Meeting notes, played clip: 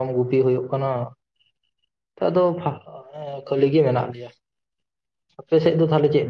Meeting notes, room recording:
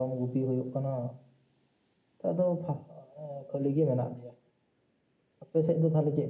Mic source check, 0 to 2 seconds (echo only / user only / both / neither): echo only